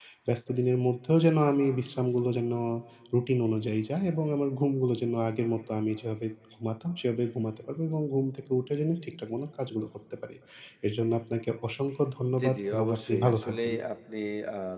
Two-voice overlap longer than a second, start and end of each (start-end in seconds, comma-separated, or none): 12.4-13.7